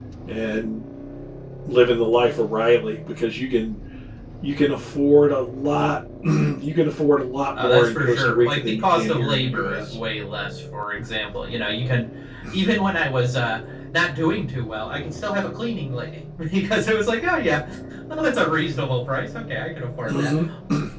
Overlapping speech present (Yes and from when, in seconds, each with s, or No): Yes, from 7.6 s